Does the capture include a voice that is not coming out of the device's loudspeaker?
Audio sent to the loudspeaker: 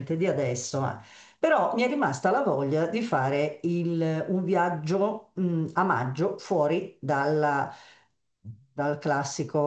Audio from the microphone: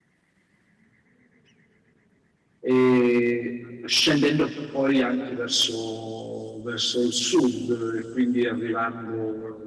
Yes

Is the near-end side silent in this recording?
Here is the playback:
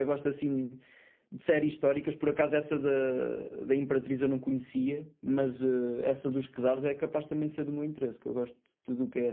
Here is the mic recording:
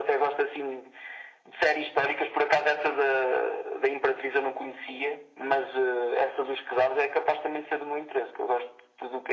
Yes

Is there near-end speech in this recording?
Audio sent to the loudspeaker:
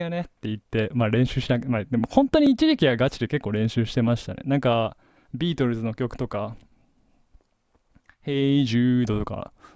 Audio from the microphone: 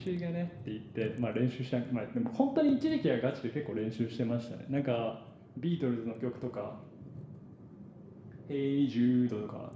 No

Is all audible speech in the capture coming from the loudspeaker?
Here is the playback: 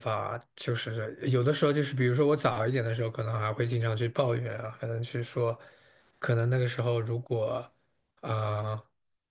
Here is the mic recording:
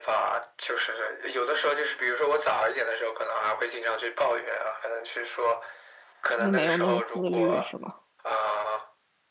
No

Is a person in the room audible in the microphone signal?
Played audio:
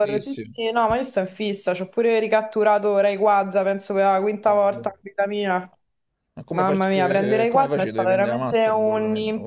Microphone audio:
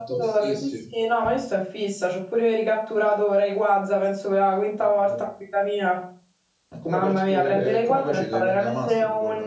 No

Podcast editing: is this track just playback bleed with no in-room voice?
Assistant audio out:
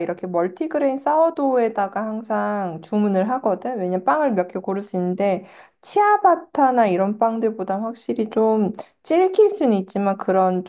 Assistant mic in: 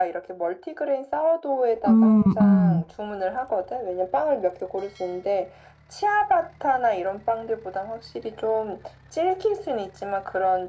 No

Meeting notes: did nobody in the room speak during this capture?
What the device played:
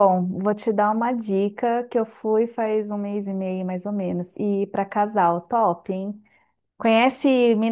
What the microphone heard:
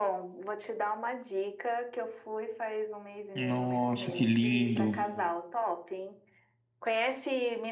No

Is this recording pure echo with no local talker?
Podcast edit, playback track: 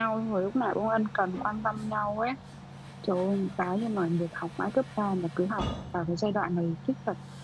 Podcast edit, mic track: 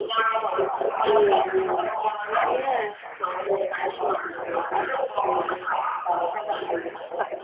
No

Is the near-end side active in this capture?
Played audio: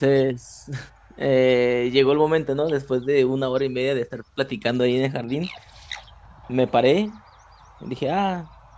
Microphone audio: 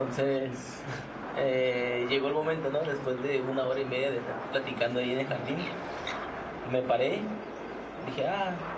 No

